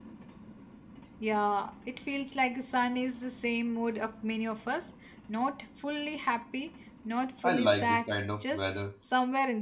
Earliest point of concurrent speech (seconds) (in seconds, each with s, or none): 7.4 s